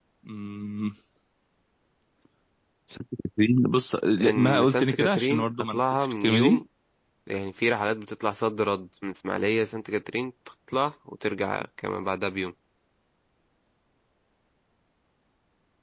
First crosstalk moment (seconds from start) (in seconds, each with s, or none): 4.2 s